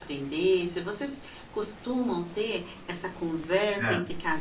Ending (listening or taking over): listening